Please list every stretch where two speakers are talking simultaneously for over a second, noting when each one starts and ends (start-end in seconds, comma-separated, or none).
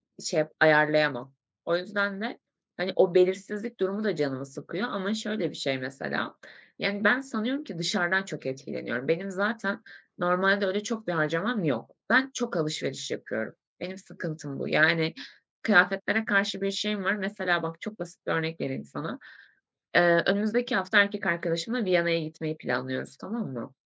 none